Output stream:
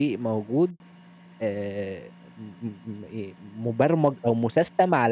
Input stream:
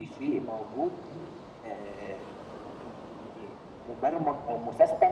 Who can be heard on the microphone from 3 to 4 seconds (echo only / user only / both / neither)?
echo only